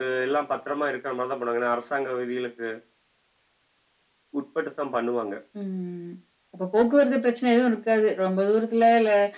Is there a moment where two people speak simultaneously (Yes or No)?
No